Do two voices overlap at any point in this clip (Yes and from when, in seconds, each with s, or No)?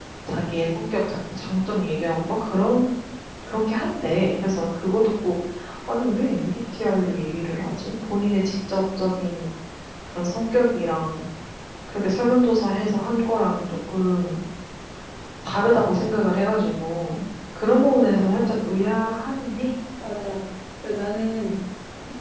No